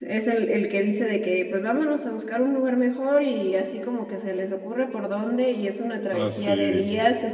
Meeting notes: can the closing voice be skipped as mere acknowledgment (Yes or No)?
Yes